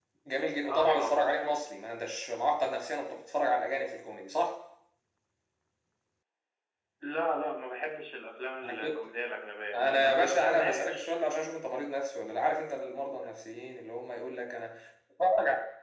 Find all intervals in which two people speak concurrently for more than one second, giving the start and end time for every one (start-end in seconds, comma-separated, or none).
9.7-11.1